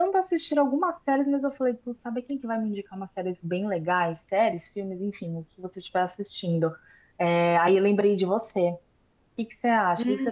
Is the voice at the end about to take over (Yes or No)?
No